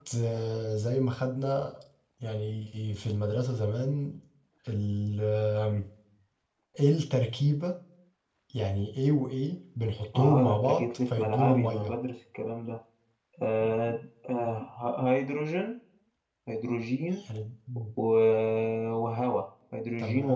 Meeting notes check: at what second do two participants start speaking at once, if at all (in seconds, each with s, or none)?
10.2 s